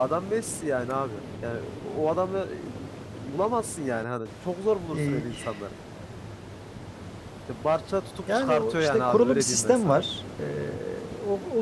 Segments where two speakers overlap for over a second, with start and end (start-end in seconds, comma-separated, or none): 8.3-10.0